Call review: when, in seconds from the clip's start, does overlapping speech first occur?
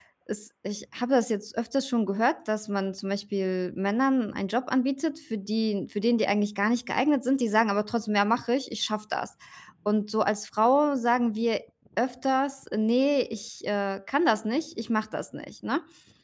none

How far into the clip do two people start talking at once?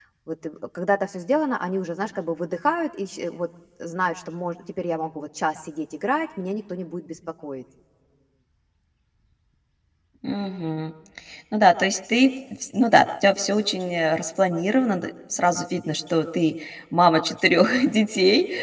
none

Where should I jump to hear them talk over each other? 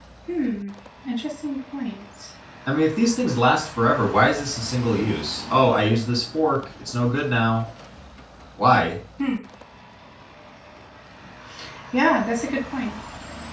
none

